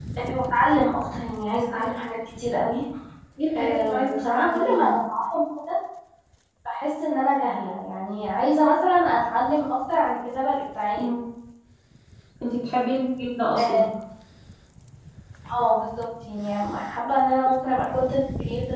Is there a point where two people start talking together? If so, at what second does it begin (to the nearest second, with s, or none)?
4 s